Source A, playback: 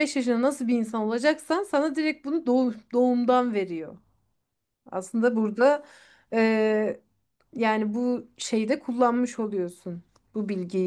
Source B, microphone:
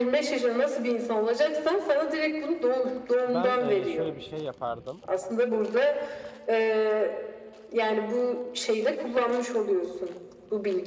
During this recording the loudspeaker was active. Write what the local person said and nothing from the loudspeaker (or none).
Ben eee, şöyle bir şey yapardım.